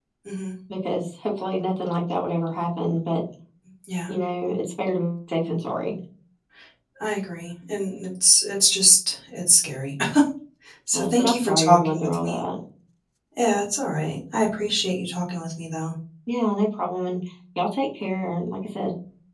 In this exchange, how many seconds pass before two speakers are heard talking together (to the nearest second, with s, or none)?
11 s